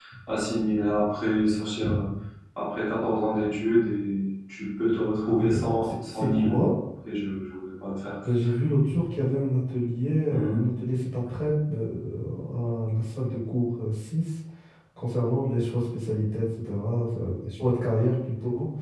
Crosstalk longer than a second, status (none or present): present